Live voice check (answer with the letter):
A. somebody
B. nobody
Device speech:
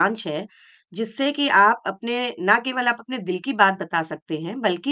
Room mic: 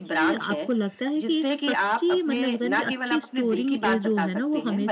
A